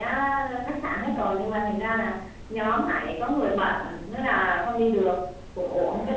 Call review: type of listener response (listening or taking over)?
listening